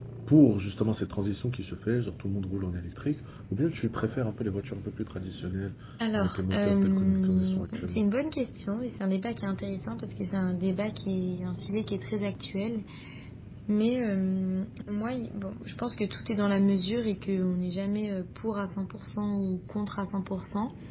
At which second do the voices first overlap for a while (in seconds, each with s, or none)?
6.2 s